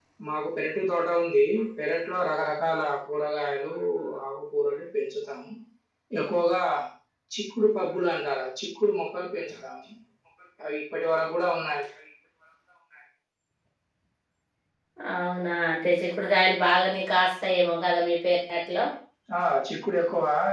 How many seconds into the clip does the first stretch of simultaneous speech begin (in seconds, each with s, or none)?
none